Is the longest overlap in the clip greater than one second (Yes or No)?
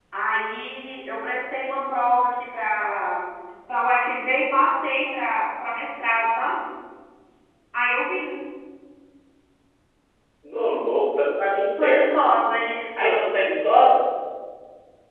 No